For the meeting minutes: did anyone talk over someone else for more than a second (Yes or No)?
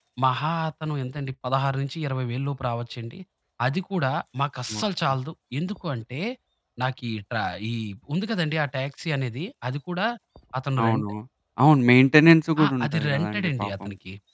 Yes